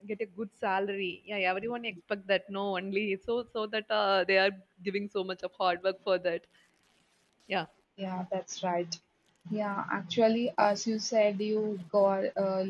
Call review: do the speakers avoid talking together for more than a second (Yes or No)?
Yes